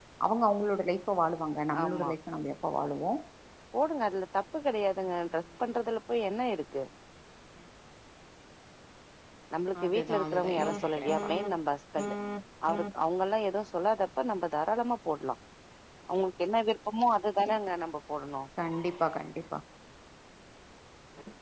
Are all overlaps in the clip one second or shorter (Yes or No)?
No